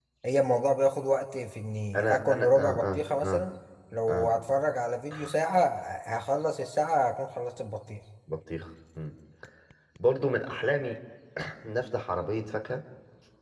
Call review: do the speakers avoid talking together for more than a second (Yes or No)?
No